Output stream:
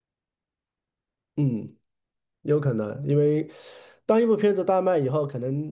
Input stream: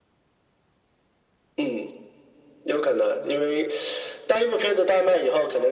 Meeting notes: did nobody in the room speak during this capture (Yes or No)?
Yes